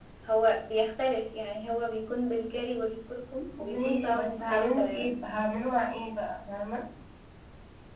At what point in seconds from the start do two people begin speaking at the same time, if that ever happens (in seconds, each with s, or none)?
3.5 s